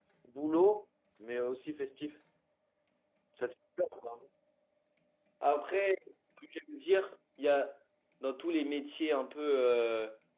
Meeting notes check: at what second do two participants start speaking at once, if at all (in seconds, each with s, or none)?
none